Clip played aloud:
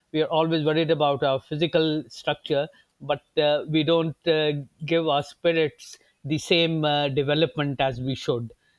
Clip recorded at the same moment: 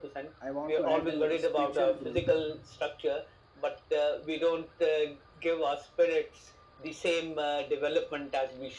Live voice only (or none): I want to add uh, spiritual growth.